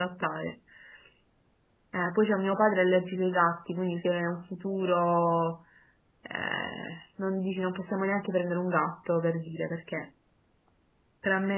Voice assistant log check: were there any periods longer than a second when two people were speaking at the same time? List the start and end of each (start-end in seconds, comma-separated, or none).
none